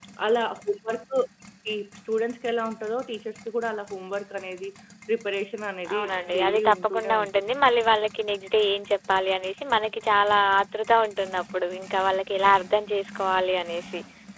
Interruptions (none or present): present